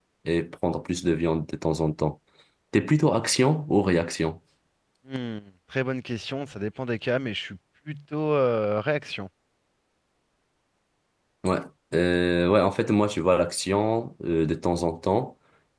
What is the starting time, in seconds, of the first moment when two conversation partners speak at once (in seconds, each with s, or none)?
none